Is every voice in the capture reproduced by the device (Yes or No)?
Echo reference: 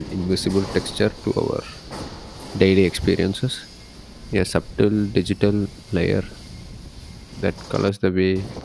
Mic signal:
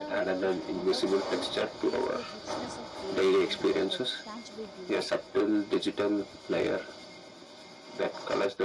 No